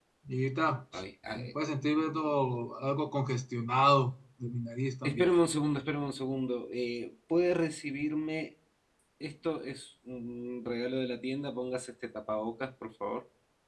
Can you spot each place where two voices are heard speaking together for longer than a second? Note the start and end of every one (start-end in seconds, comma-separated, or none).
none